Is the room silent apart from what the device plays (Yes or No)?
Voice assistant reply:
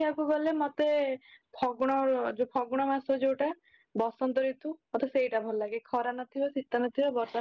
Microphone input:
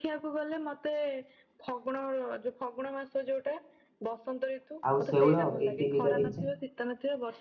No